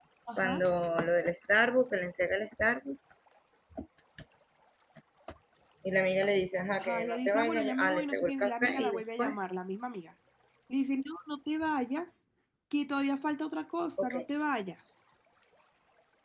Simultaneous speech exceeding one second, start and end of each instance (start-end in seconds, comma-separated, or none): 6.8-9.4